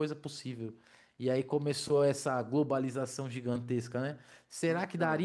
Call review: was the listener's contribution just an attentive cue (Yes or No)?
Yes